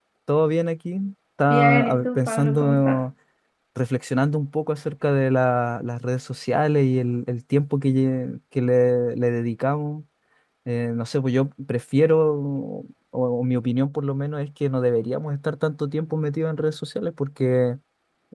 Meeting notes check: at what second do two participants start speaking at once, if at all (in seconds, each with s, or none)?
1.5 s